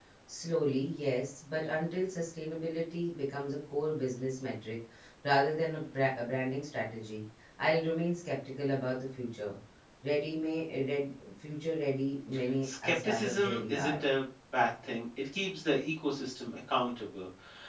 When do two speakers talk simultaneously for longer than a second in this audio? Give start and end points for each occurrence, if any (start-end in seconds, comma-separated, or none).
12.6-14.0